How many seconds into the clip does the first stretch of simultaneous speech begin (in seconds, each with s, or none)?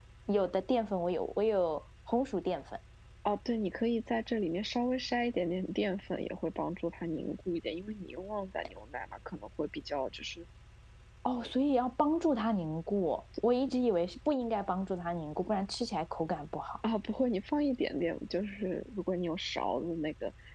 none